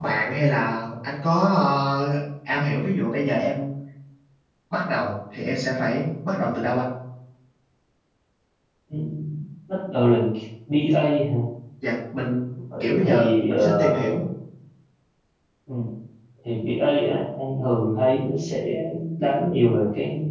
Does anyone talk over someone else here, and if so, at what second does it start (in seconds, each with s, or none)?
12.8 s